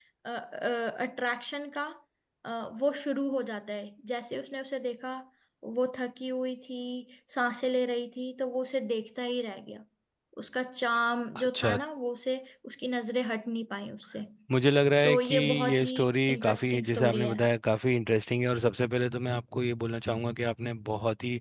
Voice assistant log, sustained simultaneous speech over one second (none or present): present